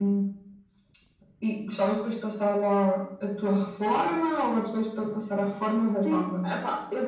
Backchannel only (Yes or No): No